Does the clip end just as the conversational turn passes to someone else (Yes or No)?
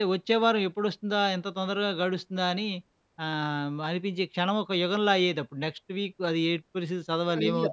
Yes